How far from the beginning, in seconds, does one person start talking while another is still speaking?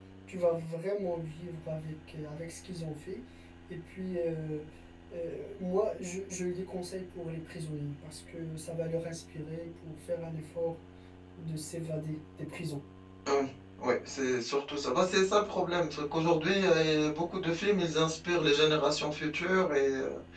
none

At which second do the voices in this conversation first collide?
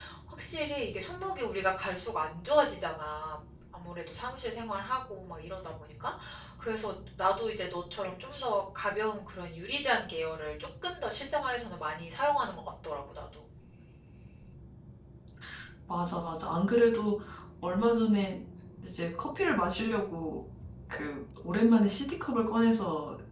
none

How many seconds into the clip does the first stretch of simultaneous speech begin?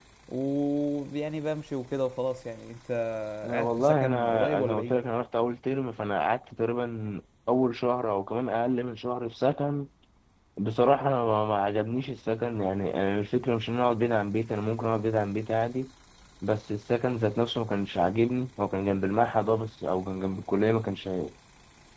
3.5 s

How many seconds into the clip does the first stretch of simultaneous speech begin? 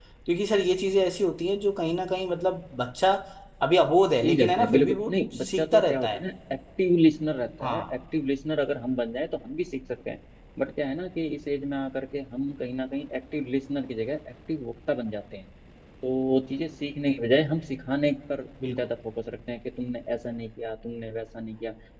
4.2 s

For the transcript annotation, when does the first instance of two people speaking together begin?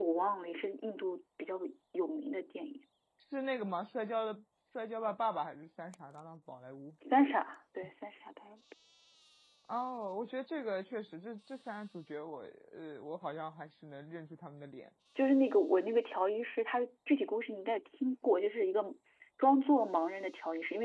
none

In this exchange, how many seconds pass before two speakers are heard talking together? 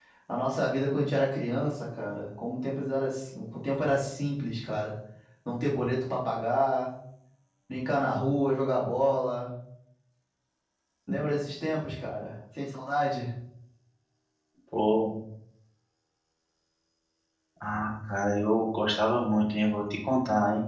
none

